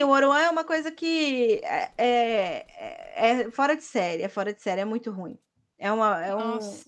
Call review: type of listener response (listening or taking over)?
listening